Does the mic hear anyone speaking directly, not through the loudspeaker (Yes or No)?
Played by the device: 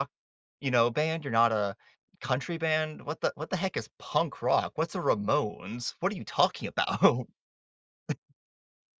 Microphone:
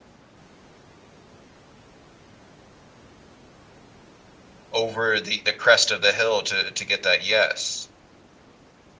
Yes